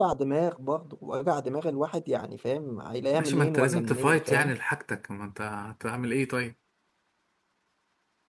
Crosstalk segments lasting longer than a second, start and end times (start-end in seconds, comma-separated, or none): 3.1-4.5